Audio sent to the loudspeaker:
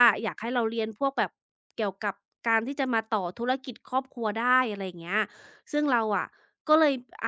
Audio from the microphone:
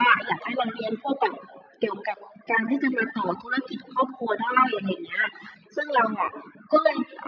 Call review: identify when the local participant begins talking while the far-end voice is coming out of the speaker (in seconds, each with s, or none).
none